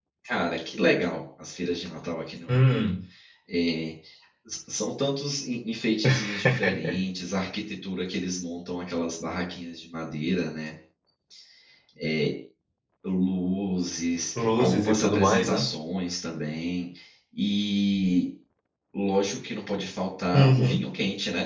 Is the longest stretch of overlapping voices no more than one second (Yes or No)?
No